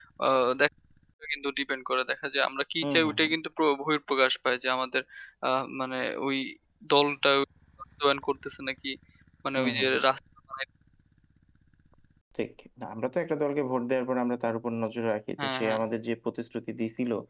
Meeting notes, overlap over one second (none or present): none